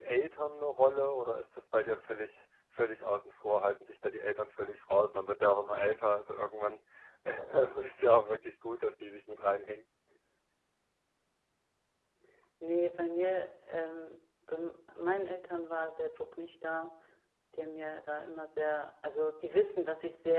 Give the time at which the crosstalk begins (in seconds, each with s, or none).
none